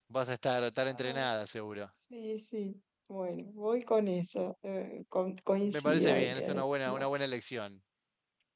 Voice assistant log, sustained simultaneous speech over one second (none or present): present